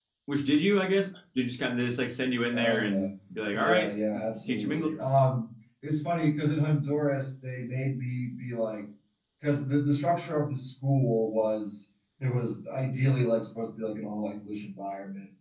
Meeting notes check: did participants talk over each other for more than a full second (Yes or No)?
No